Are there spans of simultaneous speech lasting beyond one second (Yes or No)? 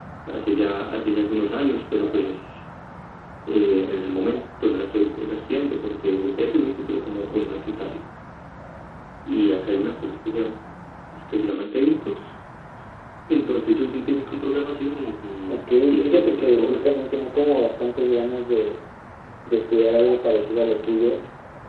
Yes